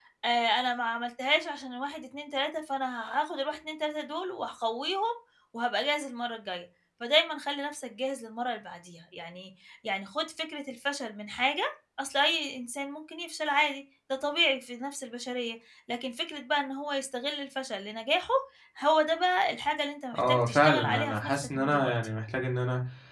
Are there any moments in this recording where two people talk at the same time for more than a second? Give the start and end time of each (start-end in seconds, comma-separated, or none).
20.2-21.9